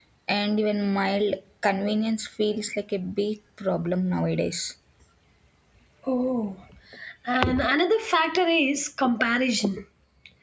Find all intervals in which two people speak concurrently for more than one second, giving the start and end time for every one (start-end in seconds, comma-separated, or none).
none